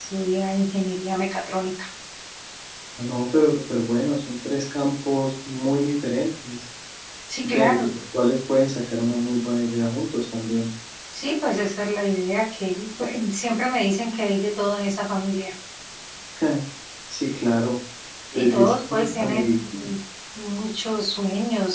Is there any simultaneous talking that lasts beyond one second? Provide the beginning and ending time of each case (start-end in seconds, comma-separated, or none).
18.3-19.9